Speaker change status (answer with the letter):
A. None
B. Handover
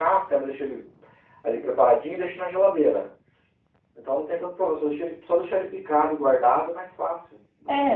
B